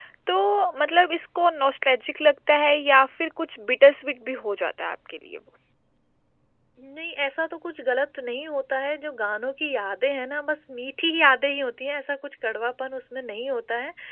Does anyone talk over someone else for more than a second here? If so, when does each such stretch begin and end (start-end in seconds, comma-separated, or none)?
none